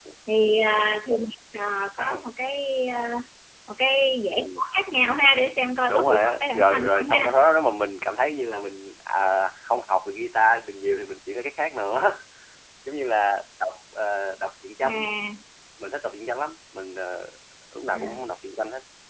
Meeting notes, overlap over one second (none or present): present